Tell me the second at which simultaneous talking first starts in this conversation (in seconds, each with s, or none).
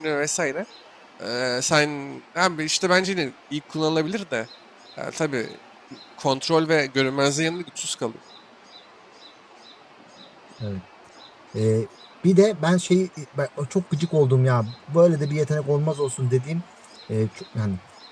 none